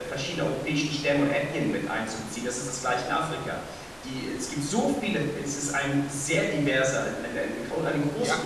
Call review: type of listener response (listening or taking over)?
taking over